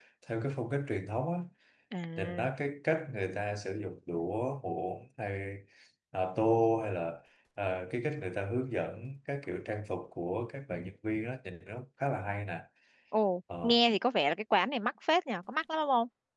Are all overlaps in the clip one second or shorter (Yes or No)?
Yes